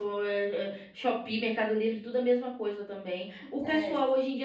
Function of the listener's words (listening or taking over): listening